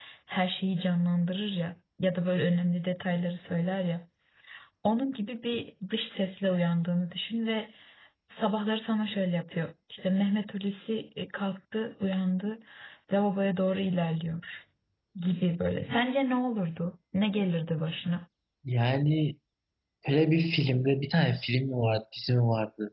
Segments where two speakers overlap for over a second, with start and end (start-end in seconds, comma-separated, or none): none